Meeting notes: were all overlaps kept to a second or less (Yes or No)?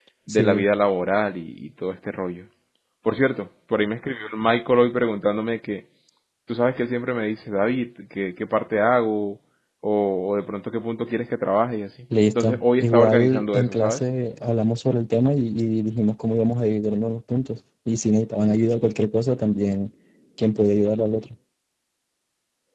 No